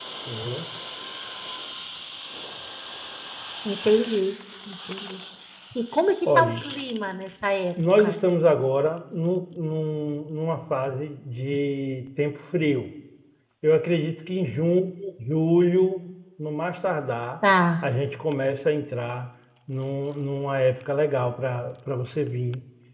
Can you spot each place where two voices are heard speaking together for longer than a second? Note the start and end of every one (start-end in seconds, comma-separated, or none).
none